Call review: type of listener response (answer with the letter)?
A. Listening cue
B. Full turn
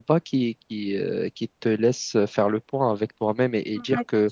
B